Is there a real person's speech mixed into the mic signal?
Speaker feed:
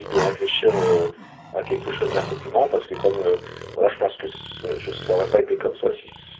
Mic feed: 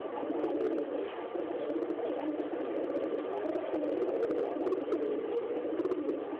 No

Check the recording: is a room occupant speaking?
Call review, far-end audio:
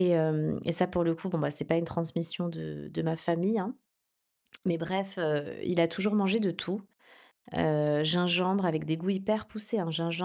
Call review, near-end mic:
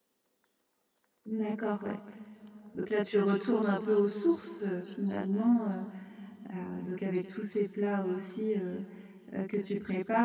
Yes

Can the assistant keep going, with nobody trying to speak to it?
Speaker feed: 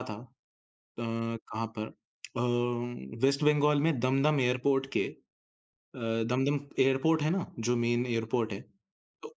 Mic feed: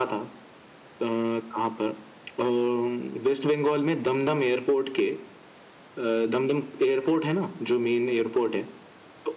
Yes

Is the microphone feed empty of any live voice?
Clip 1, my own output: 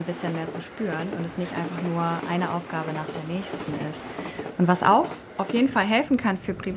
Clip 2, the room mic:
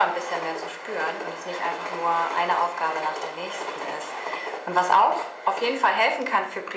Yes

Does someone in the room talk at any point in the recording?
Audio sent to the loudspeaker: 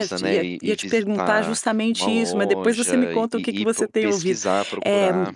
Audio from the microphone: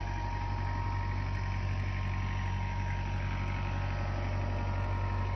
No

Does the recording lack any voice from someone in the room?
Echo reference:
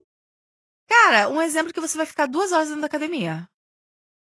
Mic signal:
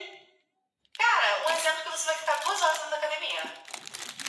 Yes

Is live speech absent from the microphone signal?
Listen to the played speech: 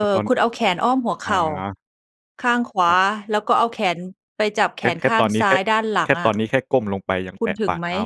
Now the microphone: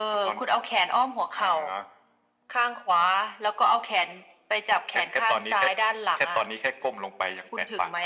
Yes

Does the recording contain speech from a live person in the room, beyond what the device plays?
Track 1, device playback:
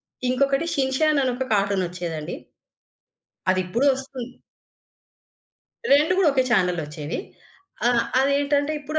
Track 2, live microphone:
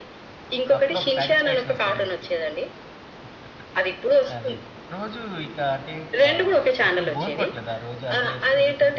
Yes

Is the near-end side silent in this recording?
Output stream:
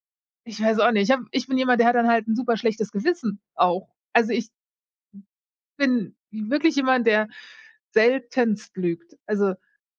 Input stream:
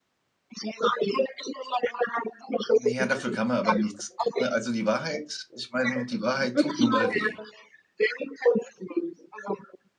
No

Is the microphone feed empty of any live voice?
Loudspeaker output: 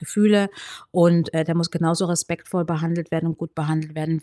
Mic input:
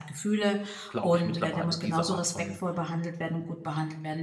No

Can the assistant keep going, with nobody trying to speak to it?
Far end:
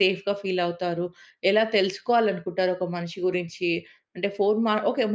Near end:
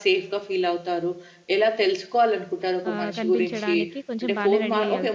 No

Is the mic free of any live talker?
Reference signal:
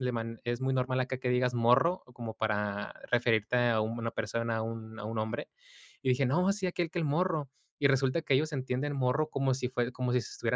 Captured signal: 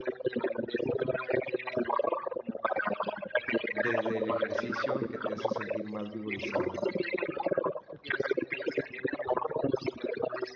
No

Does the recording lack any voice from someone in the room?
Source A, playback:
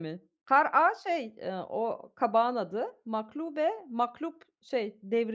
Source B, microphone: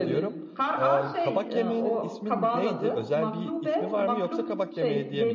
No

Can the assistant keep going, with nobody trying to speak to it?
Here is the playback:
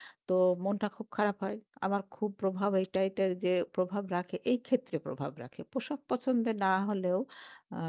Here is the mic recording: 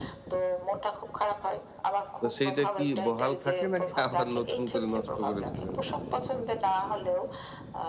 No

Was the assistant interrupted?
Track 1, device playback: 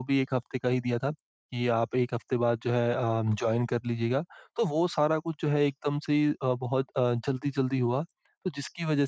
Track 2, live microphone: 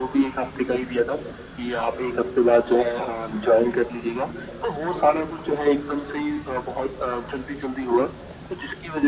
No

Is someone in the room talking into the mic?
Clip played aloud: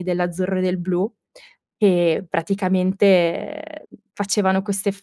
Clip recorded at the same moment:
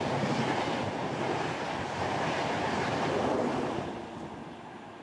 No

